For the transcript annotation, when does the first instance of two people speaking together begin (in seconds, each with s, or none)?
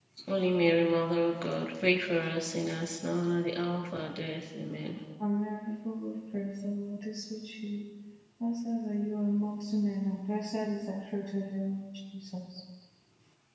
none